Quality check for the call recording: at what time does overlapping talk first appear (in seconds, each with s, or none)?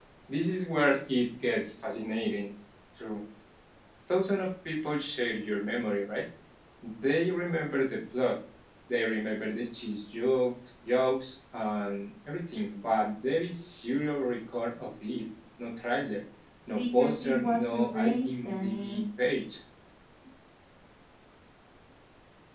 16.8 s